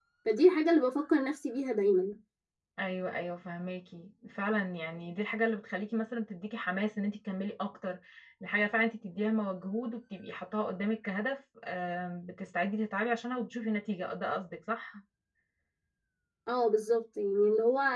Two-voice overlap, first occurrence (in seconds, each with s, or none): none